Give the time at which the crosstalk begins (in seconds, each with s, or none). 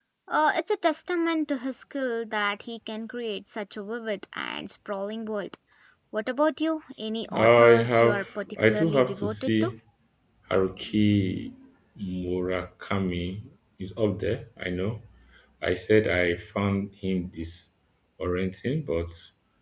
7.3 s